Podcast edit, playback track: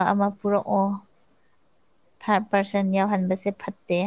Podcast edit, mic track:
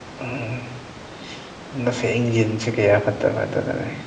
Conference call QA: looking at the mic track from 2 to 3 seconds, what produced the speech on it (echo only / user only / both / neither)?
user only